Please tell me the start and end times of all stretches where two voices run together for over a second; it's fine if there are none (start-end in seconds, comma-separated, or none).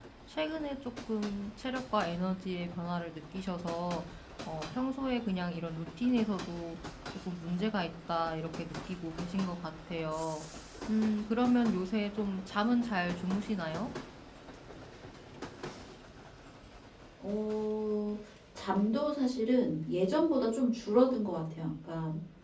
none